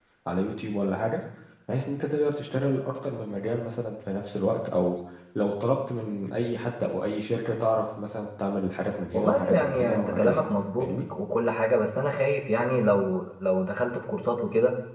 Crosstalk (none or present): present